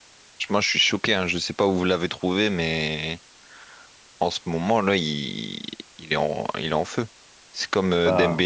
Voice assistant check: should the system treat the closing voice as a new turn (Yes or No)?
No